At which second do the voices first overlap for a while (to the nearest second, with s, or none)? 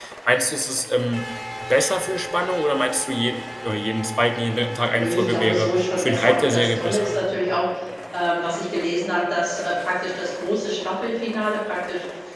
5 s